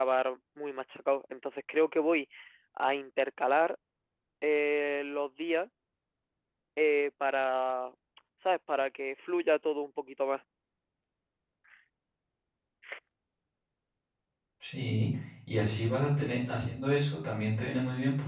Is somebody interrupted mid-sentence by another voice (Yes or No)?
No